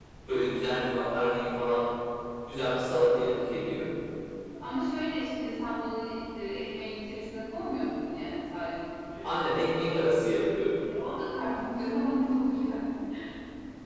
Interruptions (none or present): none